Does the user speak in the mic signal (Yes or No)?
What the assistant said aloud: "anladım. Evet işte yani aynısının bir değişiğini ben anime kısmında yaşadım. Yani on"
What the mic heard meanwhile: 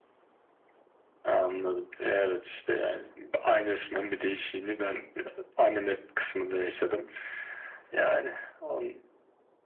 No